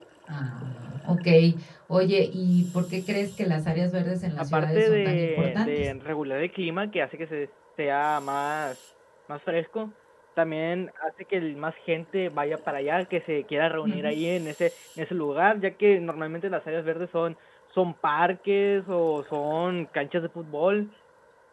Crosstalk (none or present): present